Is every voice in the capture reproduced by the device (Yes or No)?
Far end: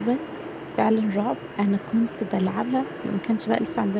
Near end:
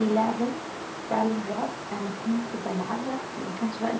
Yes